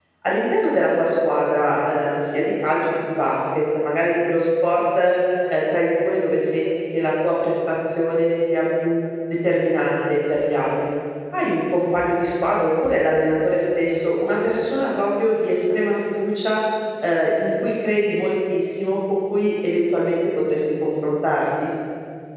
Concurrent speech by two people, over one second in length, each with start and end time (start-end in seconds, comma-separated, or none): none